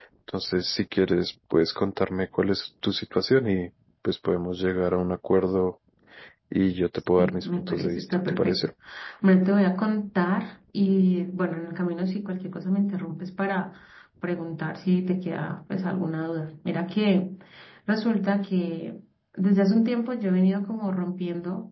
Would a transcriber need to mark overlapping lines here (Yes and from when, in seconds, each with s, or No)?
Yes, from 7.2 s